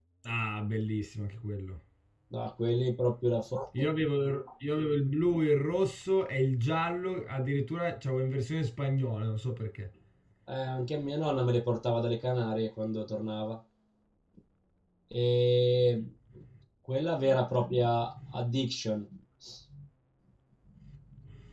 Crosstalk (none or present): none